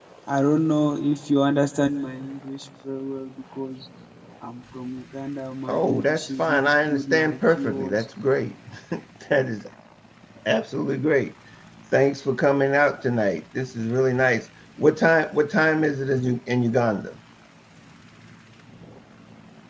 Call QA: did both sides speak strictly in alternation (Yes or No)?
No